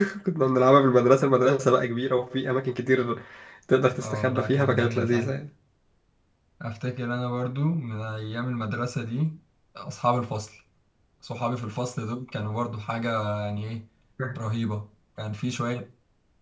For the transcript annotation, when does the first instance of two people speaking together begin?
4 s

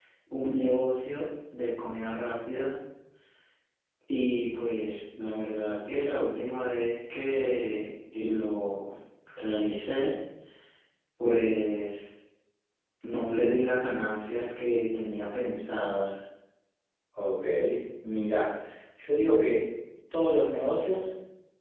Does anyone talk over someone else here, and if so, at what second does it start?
none

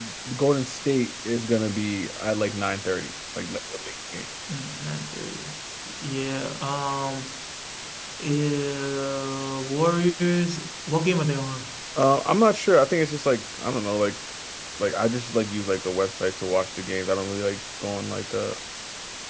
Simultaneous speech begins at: none

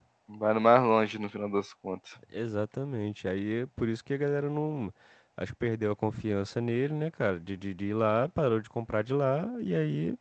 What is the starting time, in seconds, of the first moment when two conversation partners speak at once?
none

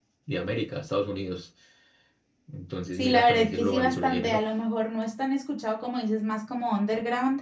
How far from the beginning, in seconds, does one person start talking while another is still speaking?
3 s

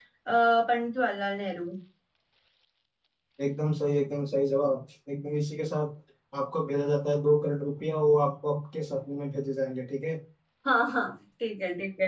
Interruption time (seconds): none

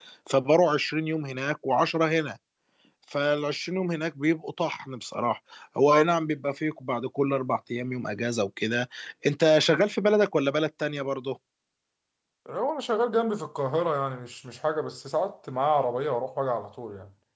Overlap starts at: none

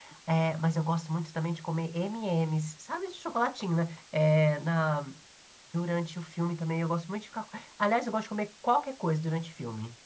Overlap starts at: none

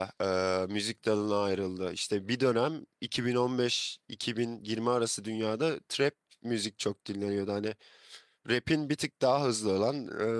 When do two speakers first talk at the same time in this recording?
none

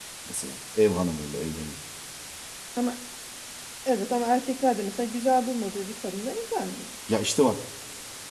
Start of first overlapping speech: none

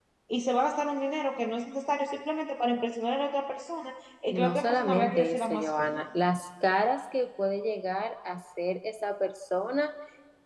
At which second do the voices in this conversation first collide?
4 s

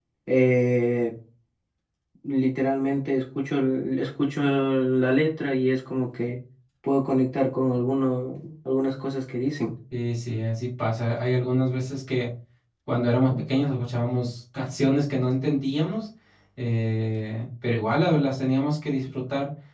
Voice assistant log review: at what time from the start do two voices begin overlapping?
none

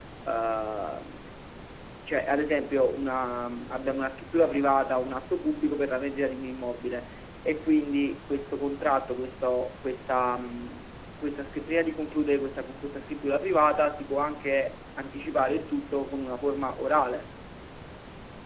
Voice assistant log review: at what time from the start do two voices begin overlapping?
none

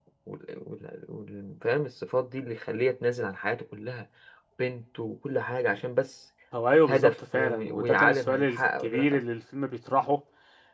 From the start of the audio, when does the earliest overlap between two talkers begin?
7 s

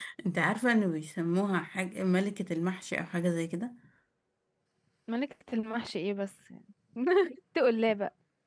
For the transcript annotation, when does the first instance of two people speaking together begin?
none

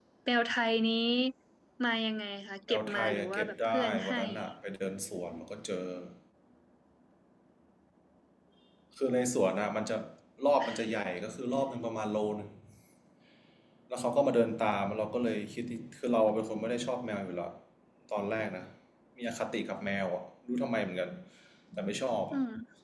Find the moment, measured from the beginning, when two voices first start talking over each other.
3 s

